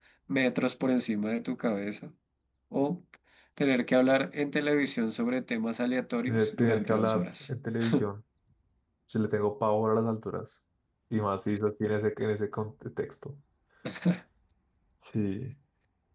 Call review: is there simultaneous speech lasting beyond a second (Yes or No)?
Yes